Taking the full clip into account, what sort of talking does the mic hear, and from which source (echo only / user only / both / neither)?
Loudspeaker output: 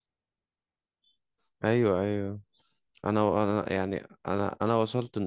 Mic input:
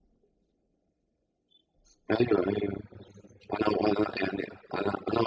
echo only